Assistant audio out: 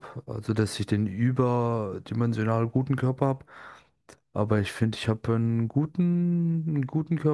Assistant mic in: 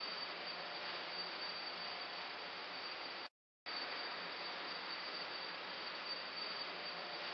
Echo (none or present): none